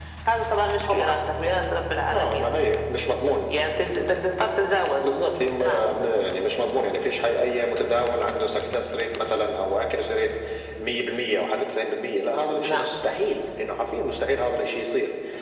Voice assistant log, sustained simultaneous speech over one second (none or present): none